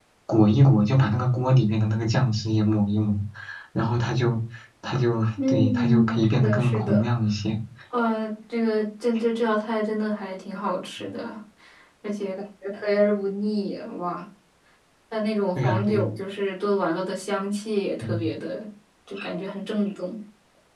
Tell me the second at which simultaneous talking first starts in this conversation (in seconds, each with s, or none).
5.5 s